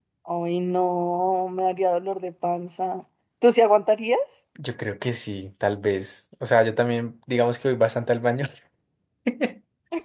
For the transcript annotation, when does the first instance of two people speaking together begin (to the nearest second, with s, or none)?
none